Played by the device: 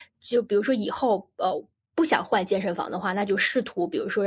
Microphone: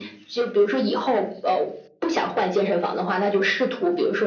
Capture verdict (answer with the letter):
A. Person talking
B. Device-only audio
B